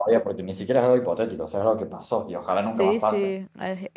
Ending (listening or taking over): taking over